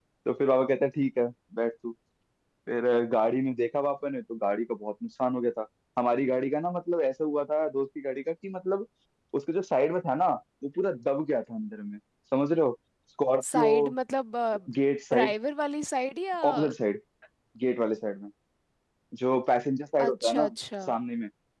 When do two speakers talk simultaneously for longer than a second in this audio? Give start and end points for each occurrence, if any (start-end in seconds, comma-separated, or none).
none